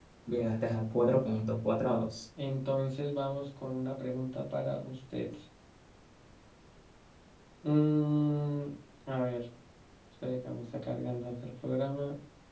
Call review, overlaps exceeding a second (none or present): none